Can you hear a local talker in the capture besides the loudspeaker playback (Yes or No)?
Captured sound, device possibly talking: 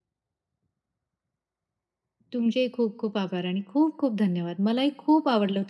Yes